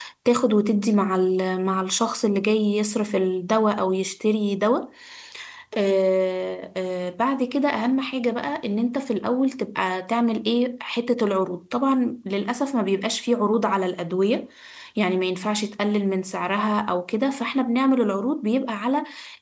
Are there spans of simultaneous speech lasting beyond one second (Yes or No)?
No